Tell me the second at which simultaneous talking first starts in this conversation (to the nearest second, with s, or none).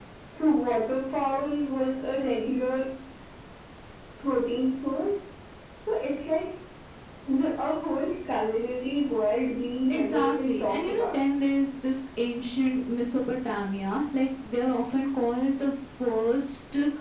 10 s